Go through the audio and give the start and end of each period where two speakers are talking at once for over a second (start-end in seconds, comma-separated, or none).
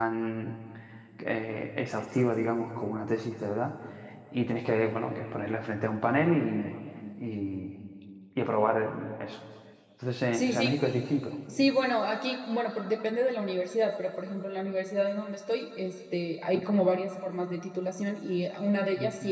none